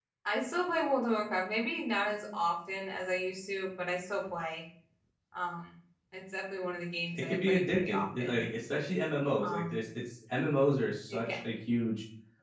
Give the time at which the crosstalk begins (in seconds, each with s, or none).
7.1 s